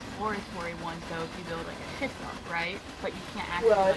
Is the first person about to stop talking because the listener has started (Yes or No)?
Yes